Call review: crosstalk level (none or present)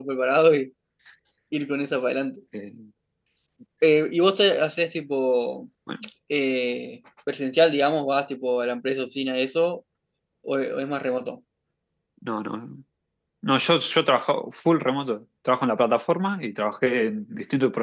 none